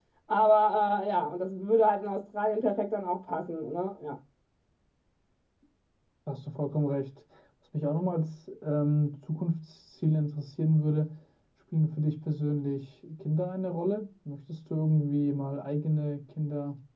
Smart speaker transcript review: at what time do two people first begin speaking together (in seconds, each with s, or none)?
none